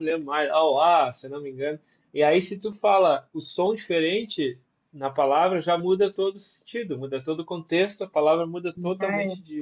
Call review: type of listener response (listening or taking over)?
listening